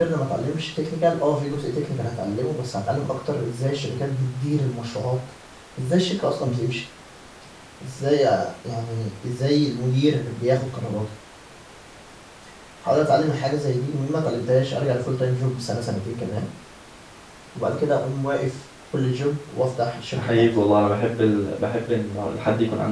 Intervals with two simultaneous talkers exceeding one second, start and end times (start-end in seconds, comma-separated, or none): none